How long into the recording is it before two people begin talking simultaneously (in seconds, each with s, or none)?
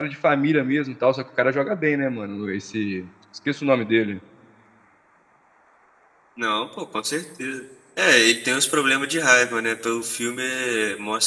none